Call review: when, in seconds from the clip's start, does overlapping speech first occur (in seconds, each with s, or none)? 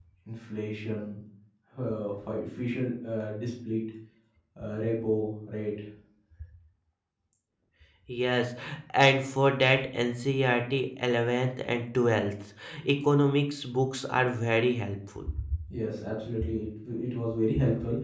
none